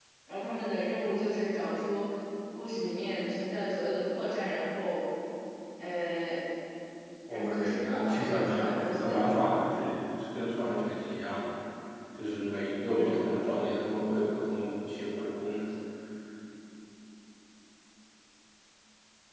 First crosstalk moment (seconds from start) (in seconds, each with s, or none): 7.3 s